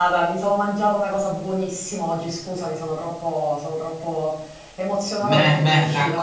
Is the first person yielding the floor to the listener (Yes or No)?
Yes